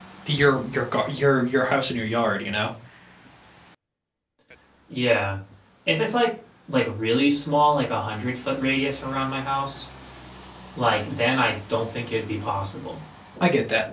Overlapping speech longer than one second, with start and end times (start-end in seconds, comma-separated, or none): none